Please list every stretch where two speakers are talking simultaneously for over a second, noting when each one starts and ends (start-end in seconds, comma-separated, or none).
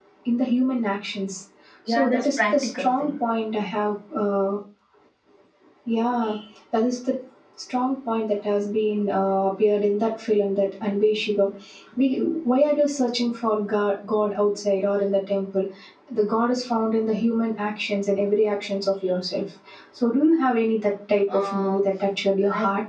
1.9-3.1